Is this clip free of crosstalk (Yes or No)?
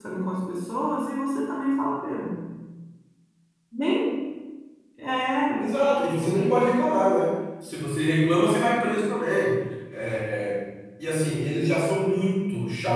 Yes